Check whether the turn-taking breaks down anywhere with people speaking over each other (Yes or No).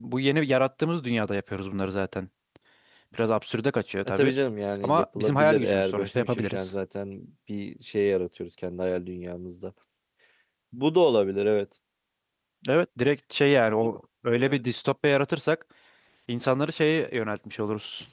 Yes